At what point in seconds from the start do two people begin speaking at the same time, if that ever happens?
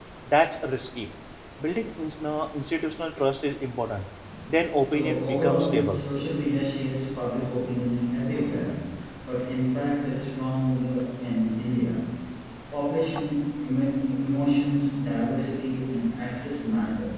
5 s

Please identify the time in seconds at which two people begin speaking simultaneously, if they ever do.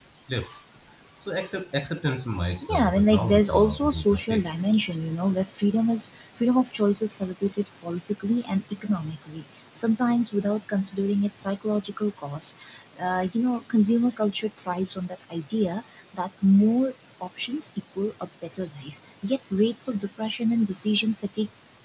3 s

